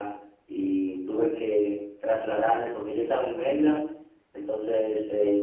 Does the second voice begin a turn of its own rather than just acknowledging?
No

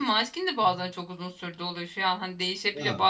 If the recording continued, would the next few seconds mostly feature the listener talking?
No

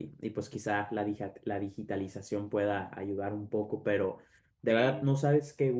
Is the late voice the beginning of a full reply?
No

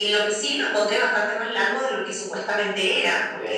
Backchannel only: Yes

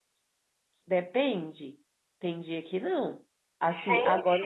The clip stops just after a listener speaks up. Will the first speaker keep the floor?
Yes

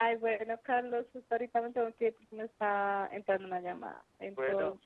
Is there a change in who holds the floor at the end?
No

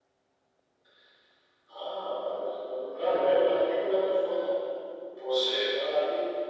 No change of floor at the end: Yes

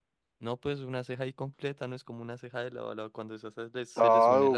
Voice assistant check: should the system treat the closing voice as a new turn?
Yes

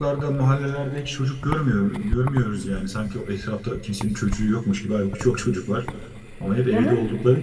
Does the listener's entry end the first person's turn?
No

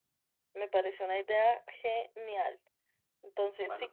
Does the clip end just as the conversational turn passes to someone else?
No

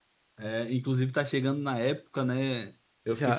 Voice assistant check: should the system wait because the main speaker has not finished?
Yes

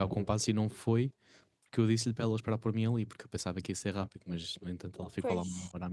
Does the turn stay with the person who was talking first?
Yes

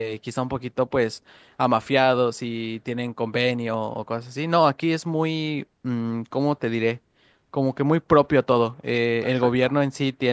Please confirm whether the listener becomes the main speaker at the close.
No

